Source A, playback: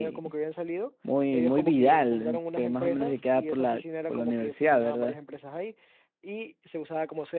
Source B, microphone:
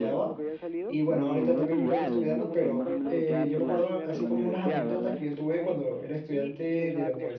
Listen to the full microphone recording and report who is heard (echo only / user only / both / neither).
both